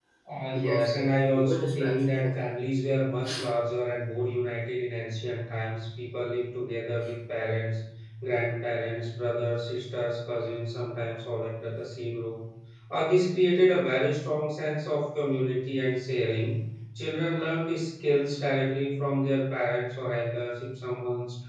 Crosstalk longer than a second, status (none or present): present